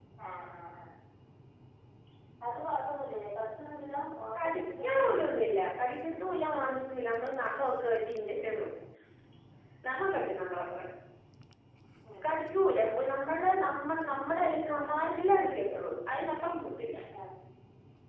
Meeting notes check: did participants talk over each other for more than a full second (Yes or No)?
No